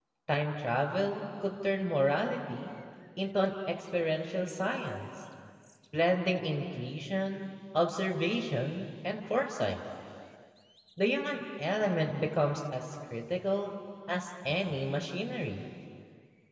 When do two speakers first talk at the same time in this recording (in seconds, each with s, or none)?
none